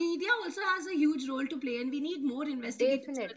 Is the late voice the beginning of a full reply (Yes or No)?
No